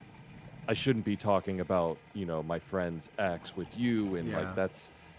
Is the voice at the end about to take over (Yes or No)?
No